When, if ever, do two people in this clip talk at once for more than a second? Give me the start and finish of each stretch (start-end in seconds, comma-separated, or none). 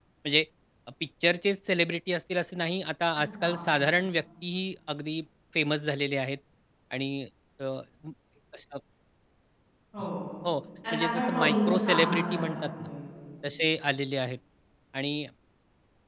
10.9-12.9